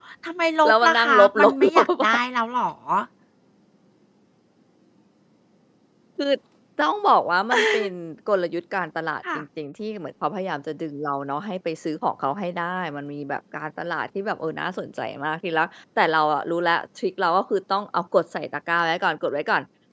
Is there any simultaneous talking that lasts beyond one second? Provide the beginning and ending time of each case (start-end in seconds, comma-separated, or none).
0.7-2.1